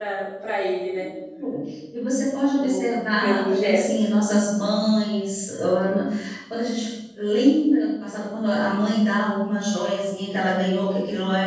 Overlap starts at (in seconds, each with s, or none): 2.5 s